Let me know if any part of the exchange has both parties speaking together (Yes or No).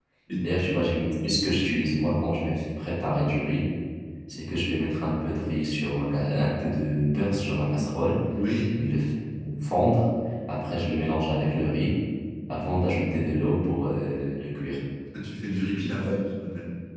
No